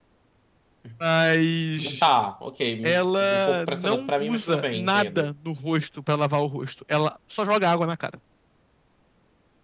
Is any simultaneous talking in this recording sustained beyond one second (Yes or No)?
Yes